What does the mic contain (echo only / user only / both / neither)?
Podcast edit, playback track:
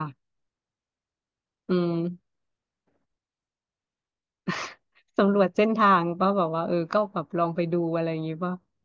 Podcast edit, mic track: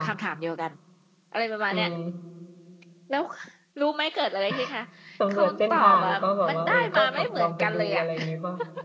both